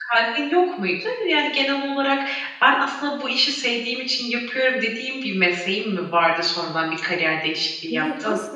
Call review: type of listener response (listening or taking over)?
taking over